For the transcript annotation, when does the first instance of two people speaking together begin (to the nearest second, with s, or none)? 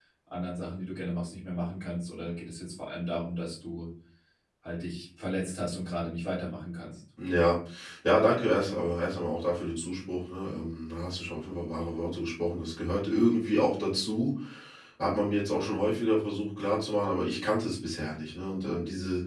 none